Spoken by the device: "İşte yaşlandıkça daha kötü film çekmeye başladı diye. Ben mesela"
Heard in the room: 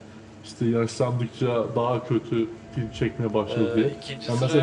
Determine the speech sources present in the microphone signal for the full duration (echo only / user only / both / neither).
both